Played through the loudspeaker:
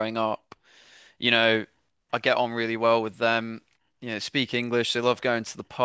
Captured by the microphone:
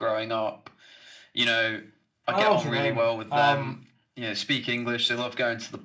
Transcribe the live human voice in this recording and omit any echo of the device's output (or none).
I don't know what you mean. Um,